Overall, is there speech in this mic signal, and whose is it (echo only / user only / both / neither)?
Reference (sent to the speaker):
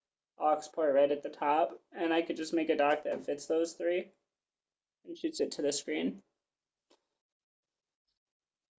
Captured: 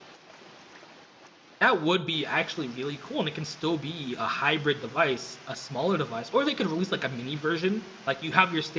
user only